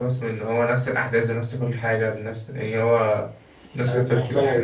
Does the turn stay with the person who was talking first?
No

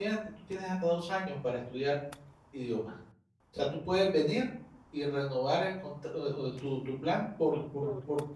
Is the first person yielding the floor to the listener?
No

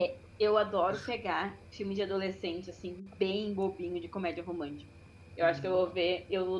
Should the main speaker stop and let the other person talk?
No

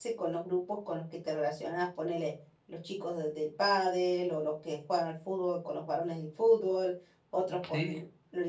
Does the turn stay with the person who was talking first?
Yes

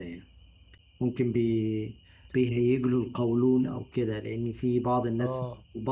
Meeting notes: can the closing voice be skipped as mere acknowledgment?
Yes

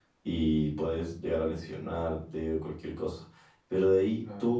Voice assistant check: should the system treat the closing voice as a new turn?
No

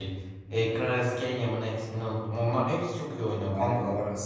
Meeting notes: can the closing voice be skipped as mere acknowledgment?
No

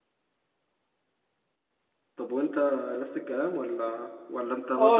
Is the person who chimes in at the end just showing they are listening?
No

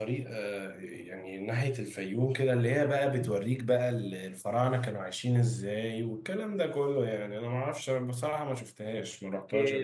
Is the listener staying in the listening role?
No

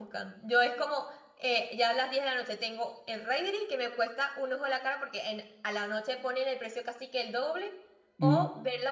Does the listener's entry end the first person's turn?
No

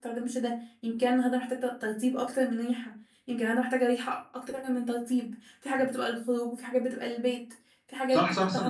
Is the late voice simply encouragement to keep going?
No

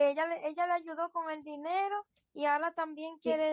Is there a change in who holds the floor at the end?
Yes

